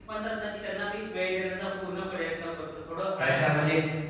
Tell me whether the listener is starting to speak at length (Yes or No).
Yes